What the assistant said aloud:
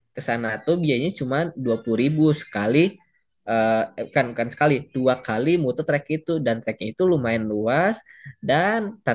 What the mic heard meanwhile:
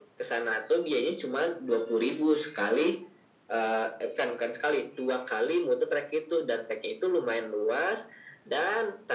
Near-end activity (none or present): none